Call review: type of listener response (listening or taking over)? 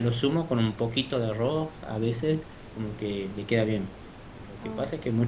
listening